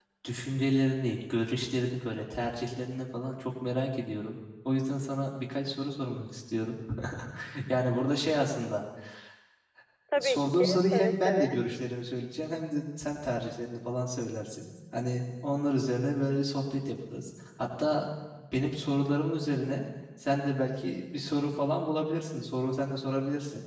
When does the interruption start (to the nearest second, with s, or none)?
10 s